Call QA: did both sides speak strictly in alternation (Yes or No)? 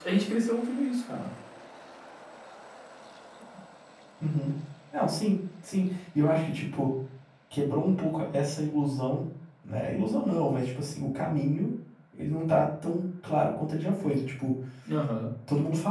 Yes